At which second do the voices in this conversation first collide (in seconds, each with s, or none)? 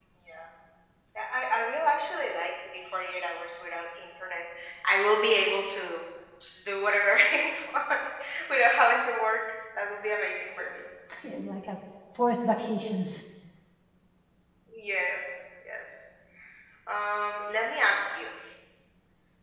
none